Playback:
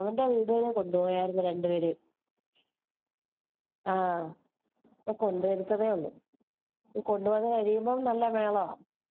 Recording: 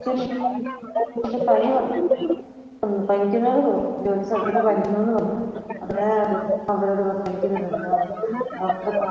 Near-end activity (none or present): present